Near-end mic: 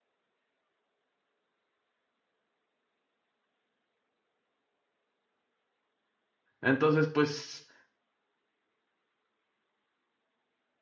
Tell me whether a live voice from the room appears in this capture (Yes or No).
Yes